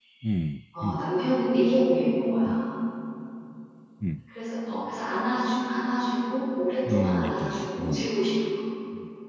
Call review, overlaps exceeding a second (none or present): present